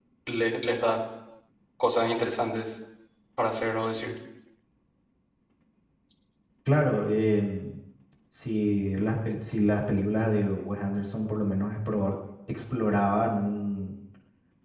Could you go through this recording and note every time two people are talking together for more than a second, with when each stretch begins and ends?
none

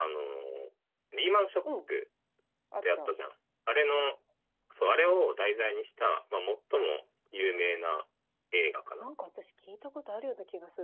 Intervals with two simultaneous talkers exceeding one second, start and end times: none

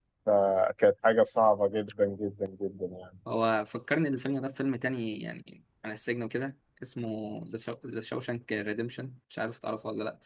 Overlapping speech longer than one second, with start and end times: none

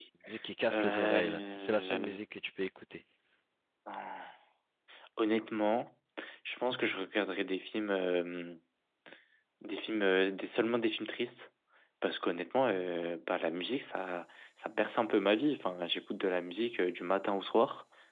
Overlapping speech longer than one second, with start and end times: 0.7-2.2

